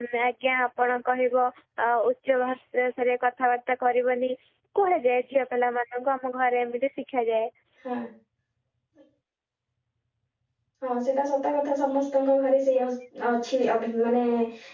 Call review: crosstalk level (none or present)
none